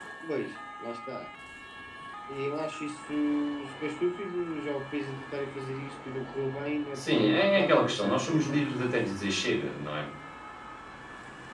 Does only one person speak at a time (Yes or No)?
No